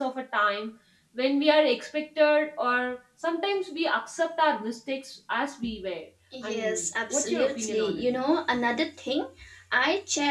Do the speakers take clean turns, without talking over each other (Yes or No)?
No